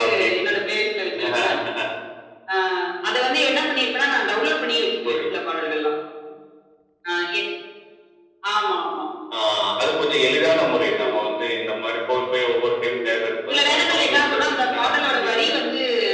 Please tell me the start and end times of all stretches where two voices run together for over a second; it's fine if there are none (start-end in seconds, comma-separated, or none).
13.5-15.5